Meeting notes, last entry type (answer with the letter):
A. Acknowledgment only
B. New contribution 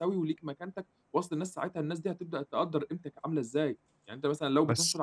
A